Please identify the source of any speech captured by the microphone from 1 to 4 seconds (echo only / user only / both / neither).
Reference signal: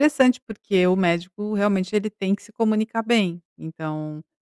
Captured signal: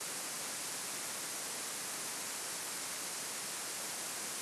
neither